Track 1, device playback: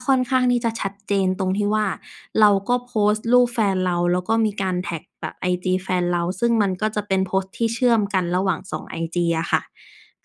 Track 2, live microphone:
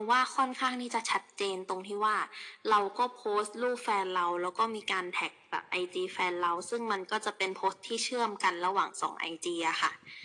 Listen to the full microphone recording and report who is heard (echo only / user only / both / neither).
echo only